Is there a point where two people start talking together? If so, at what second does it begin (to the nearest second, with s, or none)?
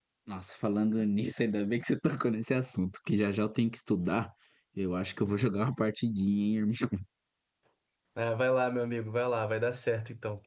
none